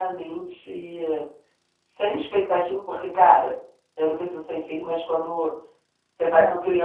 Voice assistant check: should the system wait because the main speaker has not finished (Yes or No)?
Yes